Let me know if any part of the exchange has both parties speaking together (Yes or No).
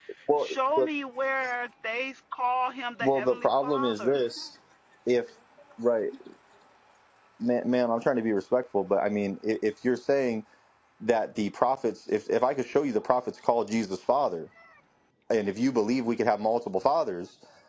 Yes